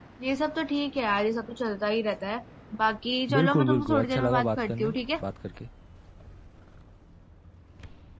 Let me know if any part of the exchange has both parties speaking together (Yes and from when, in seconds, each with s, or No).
Yes, from 3.4 s